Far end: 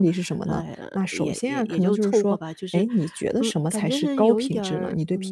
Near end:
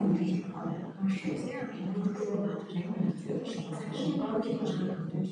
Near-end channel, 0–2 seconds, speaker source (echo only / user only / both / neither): echo only